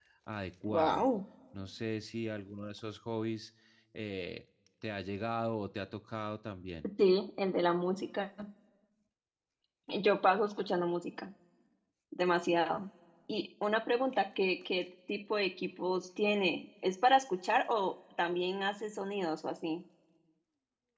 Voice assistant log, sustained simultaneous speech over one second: none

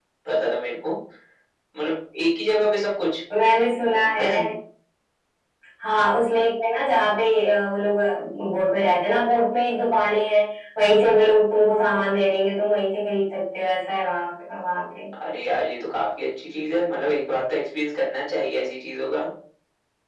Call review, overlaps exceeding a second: none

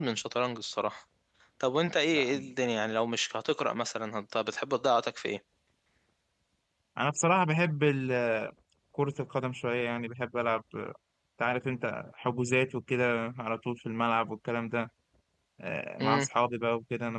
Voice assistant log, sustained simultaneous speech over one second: none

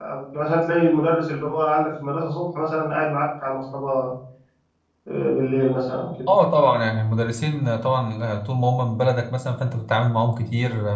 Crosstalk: none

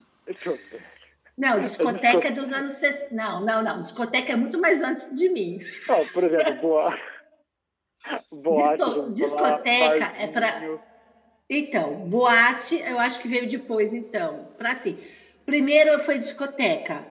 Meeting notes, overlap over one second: present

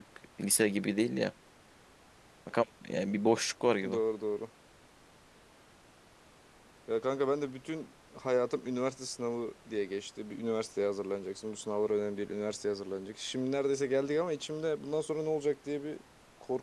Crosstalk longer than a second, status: none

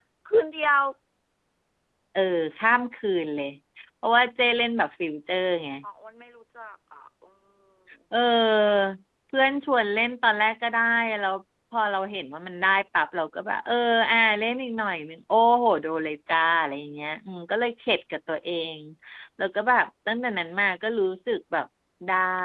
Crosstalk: none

